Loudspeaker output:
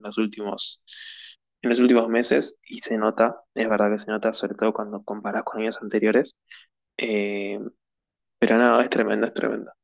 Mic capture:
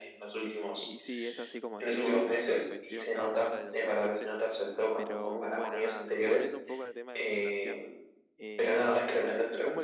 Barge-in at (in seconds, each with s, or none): 0.4 s